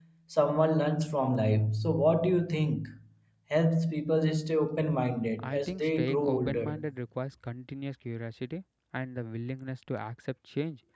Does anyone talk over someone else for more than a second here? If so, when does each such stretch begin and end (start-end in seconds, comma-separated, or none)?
5.4-6.8